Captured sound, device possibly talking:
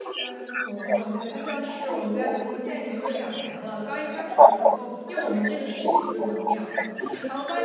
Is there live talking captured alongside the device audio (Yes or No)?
Yes